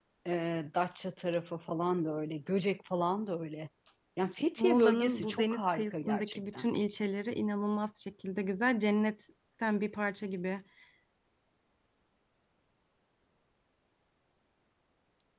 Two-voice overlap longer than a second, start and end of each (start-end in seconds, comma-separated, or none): 4.6-6.7